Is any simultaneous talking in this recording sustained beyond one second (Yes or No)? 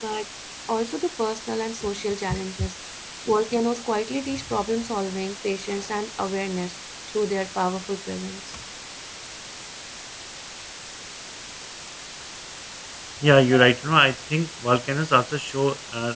No